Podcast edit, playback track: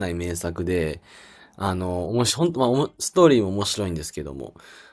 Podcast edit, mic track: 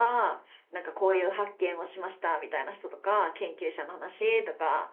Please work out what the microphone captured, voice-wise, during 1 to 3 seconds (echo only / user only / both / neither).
user only